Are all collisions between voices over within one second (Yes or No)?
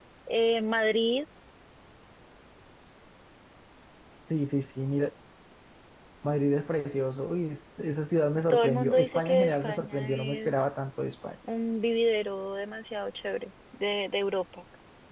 No